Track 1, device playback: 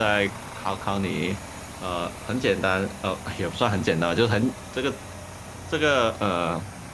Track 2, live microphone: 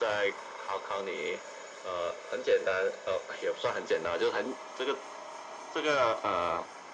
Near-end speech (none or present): none